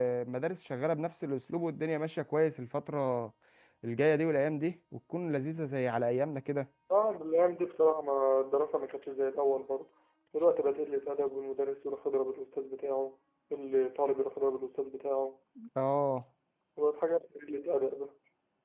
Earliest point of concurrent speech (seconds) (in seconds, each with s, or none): none